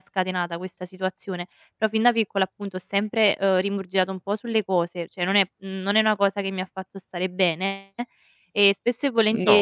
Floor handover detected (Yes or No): No